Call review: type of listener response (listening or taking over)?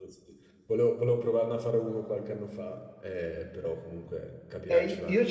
taking over